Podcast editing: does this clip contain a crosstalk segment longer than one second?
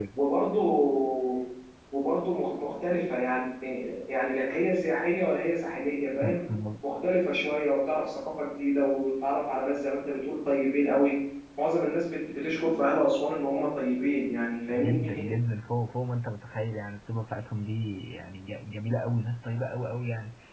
No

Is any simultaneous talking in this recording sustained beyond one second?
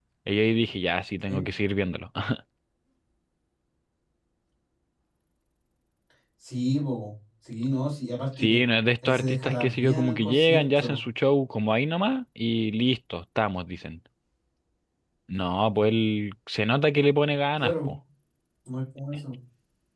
Yes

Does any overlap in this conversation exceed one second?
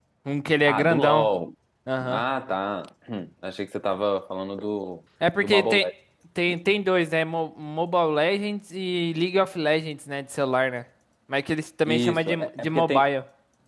Yes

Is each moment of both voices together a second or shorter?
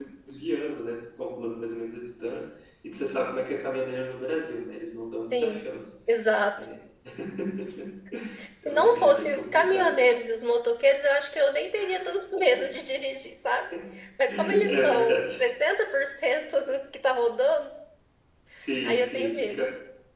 No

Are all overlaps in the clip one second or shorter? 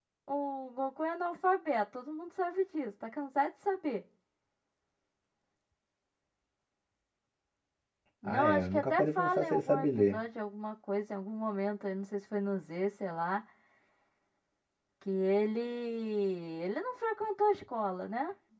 No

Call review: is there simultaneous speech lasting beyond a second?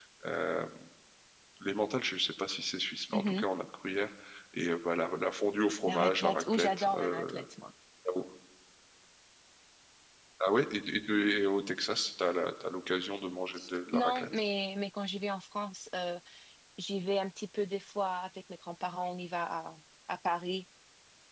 Yes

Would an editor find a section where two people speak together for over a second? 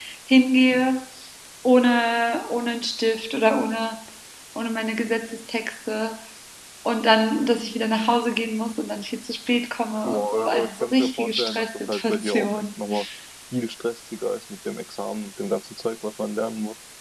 Yes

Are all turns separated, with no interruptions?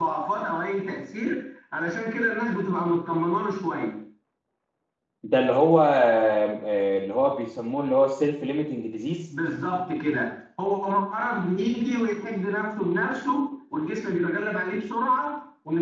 Yes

